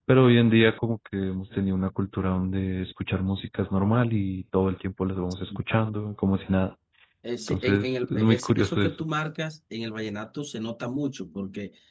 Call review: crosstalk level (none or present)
present